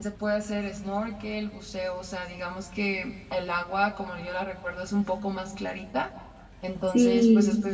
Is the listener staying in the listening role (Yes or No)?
Yes